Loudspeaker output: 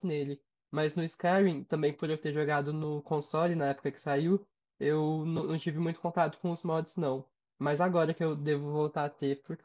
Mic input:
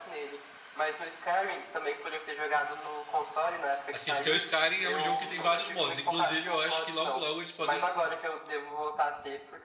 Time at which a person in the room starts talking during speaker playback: 3.9 s

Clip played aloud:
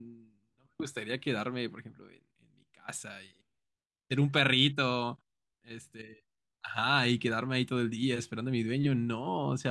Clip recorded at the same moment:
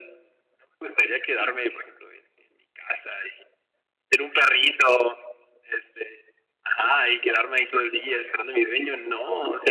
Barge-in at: none

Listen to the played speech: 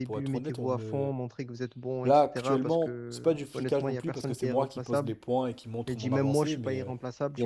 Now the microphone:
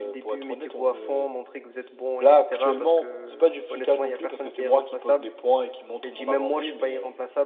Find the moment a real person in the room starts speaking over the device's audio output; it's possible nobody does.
none

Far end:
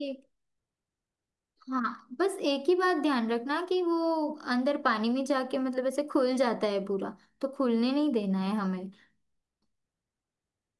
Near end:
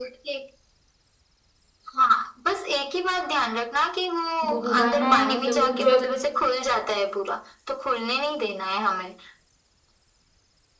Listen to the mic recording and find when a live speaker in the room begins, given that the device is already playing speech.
4.5 s

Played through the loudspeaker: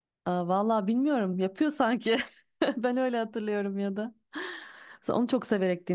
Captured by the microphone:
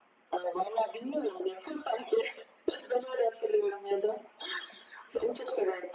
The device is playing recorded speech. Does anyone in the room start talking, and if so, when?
none

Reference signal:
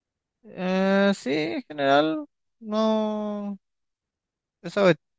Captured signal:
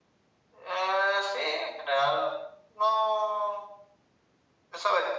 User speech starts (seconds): none

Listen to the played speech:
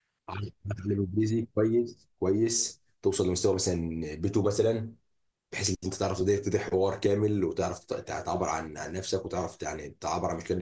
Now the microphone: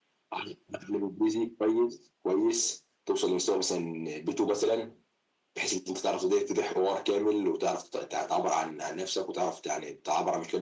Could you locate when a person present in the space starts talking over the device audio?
none

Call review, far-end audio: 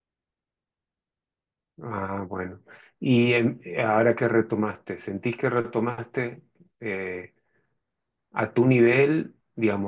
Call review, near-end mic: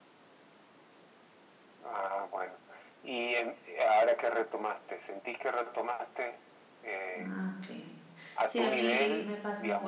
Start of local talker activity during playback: 7.2 s

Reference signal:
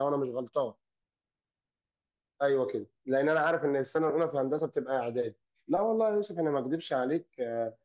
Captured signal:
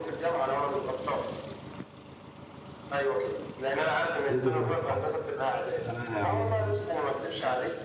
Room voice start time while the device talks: 4.3 s

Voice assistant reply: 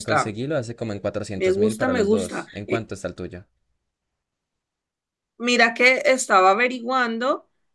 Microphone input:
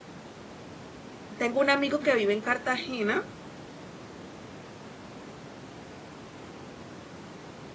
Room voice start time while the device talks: 1.4 s

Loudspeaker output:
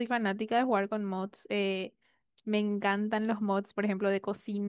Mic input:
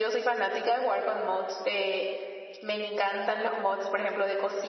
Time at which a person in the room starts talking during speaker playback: none

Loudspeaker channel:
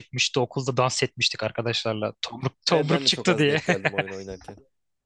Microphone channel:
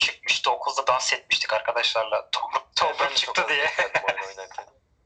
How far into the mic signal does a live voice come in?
none

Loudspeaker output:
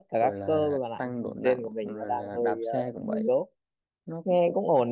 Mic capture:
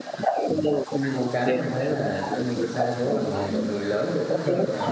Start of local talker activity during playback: 0.9 s

